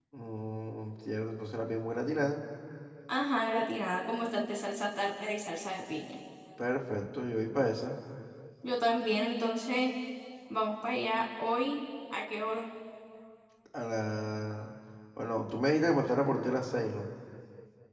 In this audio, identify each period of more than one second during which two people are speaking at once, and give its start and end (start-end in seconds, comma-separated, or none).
none